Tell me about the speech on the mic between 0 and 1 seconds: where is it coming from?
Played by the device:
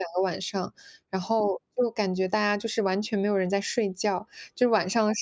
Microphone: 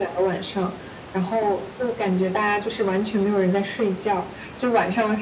echo only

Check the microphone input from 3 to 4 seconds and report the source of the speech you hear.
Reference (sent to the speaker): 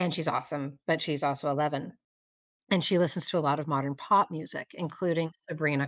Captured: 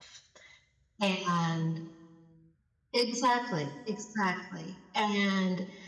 user only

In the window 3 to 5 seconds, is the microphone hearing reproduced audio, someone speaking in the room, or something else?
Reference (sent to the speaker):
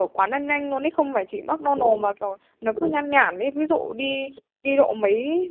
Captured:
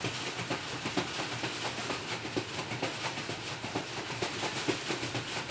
neither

